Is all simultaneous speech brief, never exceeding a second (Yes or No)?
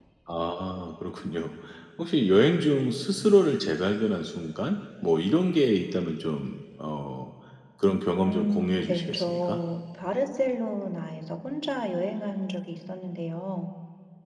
No